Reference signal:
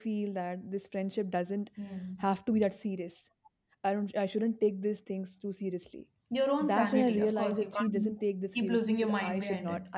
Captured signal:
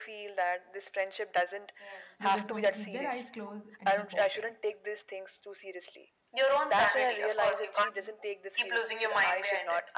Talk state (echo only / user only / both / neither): both